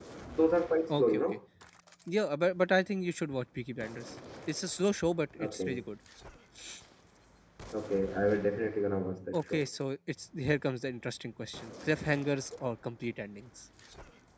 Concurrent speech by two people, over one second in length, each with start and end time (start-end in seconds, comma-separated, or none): none